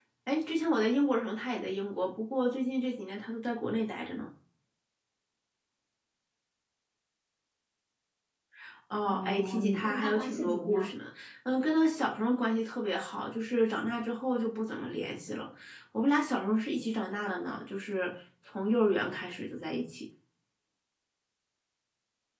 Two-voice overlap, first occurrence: 9.1 s

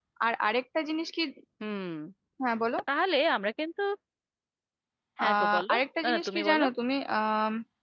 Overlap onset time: 5.2 s

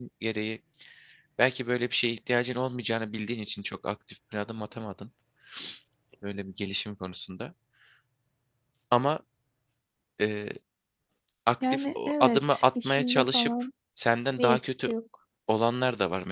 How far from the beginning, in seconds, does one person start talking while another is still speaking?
11.7 s

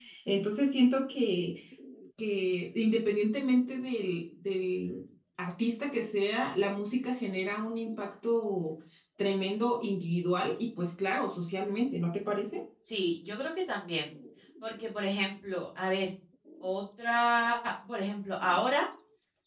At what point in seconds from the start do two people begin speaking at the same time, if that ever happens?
none

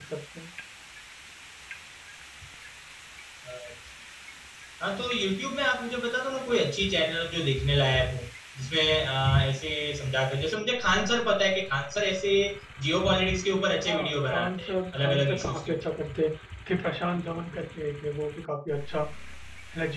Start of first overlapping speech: 13.8 s

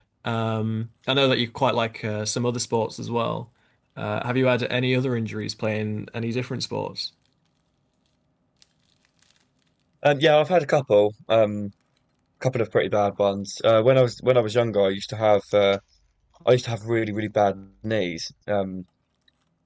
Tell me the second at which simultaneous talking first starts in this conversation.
none

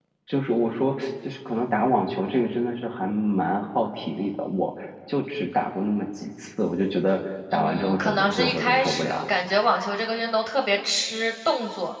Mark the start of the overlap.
7.5 s

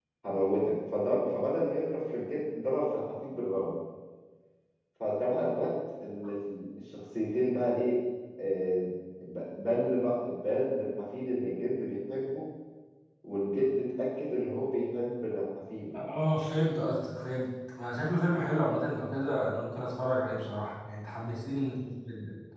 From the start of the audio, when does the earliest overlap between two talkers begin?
none

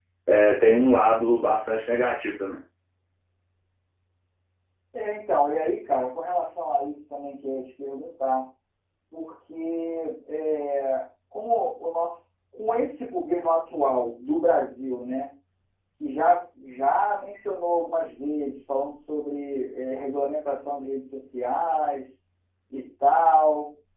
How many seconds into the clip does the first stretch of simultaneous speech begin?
none

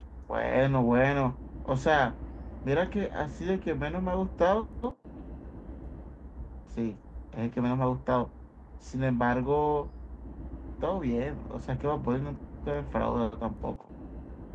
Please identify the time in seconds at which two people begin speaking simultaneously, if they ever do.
none

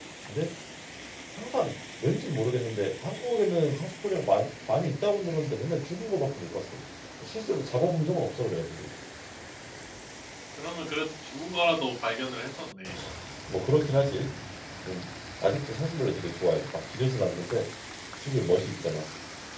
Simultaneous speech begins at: none

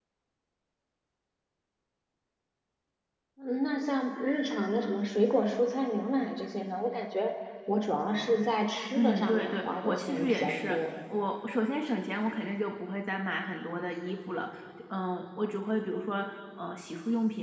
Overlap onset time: 8.9 s

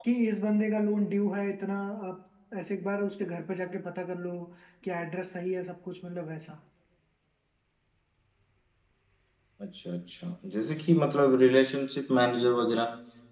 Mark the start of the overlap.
none

